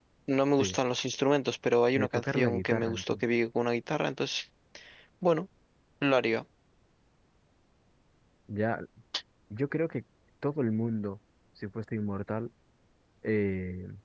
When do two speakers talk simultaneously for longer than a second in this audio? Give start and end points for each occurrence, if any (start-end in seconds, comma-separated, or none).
1.9-3.2